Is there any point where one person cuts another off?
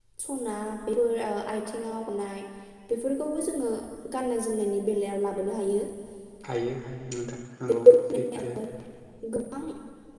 No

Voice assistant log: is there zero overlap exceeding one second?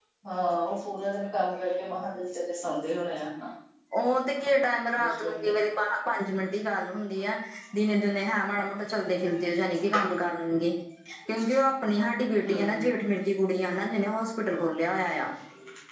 Yes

